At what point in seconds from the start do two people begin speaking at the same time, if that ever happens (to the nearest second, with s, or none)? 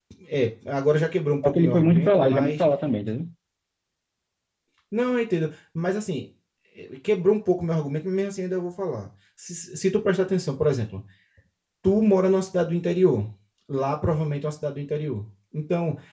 1 s